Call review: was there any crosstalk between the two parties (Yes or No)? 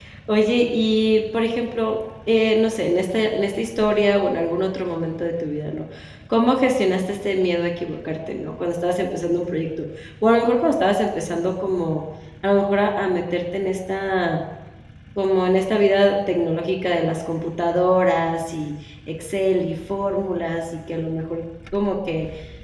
No